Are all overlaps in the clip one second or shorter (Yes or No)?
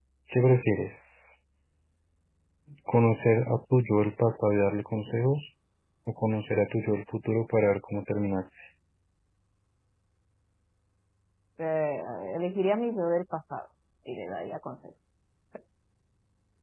Yes